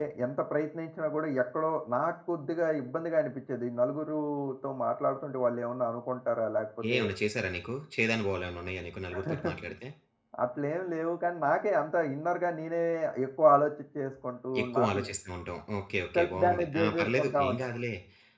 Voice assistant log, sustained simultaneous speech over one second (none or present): present